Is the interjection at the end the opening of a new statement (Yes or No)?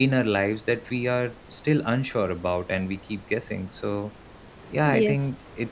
No